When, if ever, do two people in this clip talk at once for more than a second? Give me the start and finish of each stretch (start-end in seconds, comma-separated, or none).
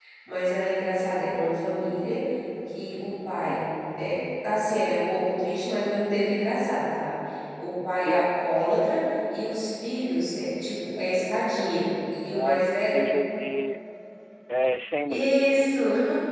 none